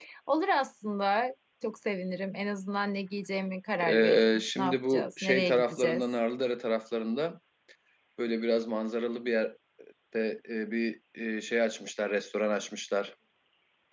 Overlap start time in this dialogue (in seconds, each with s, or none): 3.8 s